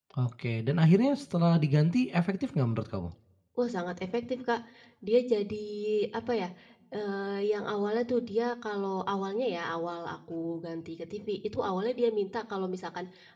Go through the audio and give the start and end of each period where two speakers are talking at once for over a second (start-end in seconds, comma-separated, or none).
none